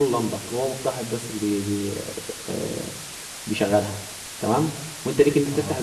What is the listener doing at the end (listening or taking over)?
listening